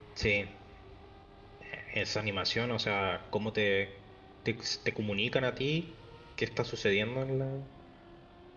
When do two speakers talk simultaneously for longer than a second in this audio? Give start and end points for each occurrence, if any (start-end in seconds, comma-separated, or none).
none